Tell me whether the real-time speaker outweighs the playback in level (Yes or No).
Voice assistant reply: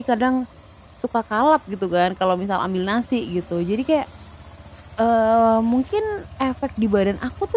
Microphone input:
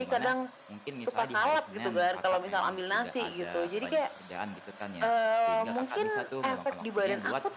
No